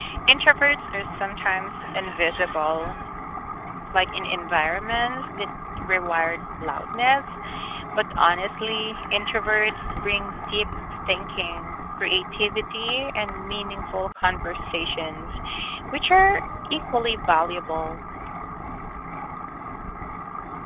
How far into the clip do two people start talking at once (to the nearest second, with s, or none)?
none